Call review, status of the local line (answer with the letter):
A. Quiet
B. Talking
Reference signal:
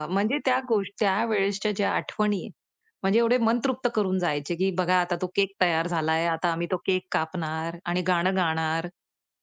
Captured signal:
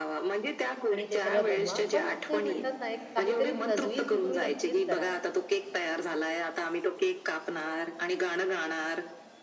B